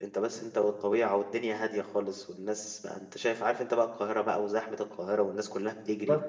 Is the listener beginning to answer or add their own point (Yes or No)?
No